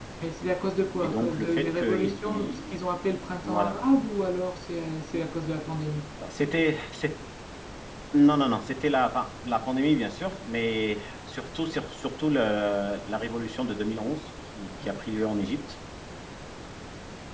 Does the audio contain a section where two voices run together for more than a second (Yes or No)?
Yes